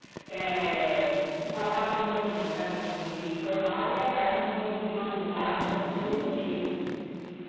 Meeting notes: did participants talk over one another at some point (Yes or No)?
Yes